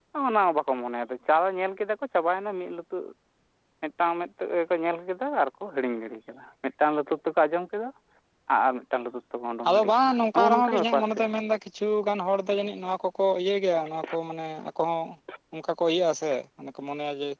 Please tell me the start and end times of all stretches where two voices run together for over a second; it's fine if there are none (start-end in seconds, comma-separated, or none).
9.7-11.2